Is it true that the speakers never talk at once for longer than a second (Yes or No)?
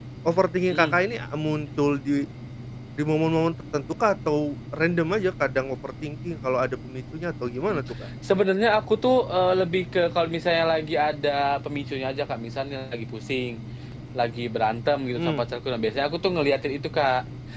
Yes